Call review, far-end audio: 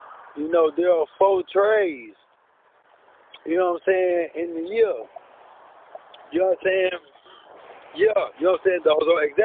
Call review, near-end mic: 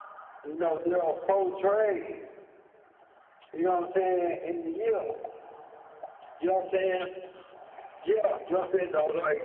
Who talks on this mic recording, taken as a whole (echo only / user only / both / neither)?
echo only